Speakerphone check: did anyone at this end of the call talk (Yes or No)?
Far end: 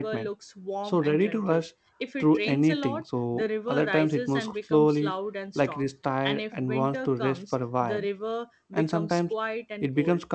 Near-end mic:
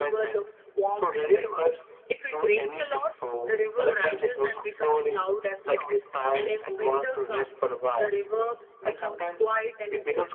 No